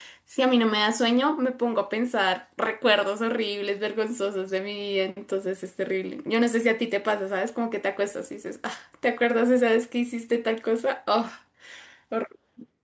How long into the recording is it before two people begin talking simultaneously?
none

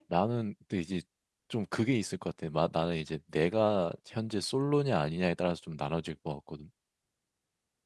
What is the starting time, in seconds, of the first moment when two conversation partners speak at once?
none

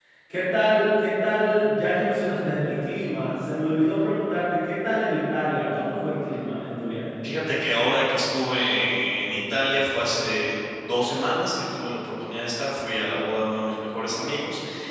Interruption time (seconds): none

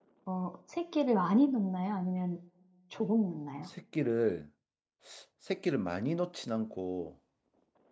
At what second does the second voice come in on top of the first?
none

